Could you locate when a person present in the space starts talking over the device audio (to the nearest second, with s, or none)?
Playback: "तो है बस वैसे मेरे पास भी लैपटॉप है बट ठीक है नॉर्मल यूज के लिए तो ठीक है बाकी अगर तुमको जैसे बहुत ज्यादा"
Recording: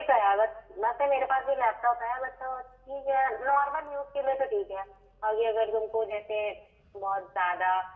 none